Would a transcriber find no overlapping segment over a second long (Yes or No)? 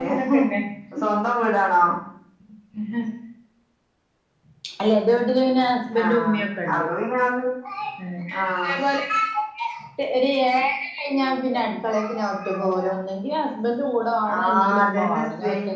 No